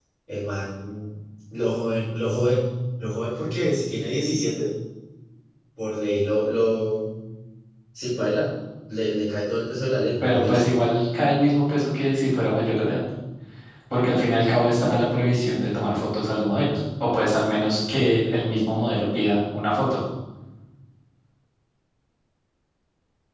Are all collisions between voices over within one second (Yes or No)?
Yes